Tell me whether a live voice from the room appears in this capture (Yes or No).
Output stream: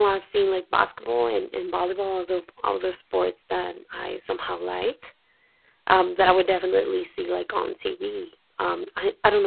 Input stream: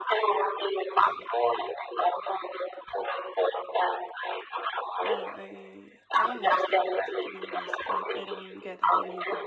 Yes